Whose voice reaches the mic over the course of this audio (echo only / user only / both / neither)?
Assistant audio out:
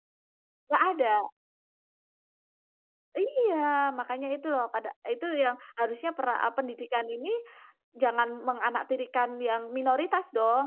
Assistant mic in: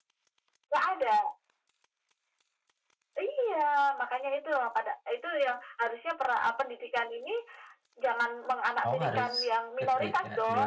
both